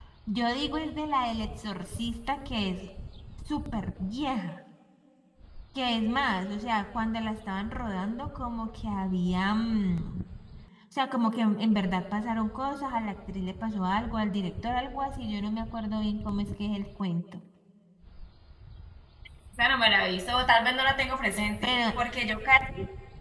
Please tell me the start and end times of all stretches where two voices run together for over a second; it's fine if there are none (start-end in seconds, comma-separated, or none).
none